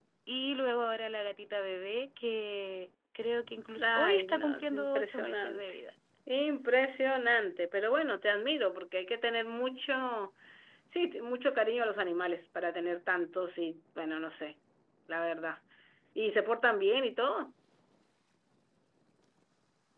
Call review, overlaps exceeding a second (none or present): present